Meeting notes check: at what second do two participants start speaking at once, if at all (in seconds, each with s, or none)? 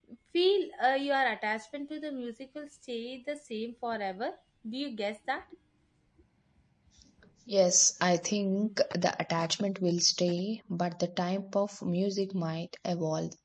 none